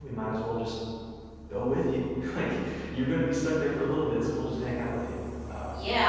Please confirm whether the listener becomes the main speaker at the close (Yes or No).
Yes